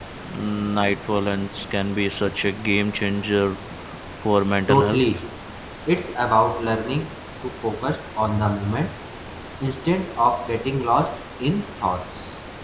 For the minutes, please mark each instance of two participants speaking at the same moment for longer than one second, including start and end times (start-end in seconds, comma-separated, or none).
none